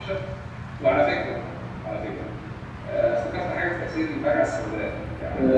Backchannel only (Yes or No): Yes